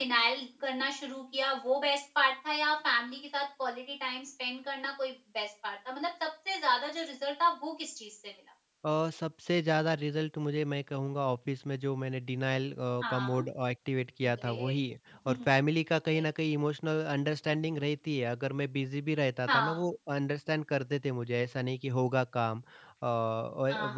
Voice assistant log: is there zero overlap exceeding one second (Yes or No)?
Yes